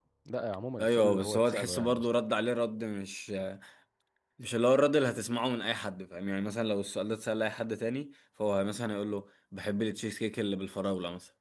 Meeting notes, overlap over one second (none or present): present